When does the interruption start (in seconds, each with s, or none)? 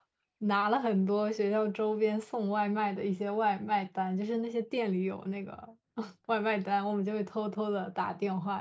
none